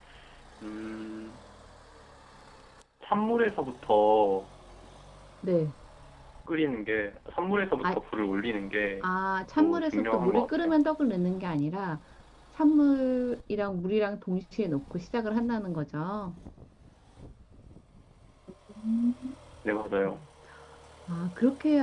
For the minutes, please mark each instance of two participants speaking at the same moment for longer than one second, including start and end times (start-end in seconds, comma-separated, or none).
9.6-10.8